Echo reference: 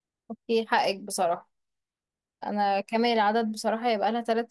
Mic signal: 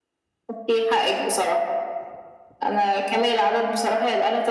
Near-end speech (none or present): none